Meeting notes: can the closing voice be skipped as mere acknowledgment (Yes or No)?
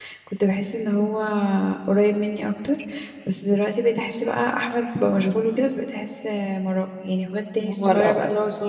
Yes